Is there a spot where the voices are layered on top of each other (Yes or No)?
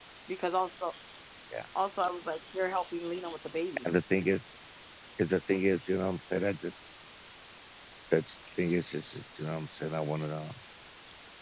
No